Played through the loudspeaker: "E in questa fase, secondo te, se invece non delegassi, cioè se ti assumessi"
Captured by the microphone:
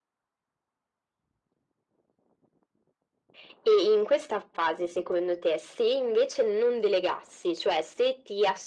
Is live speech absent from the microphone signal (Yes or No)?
Yes